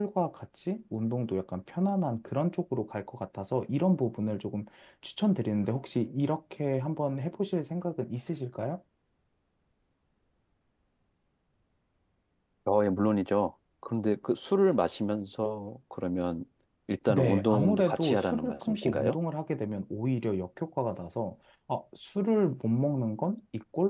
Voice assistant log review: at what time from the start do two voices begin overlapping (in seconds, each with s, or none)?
17.1 s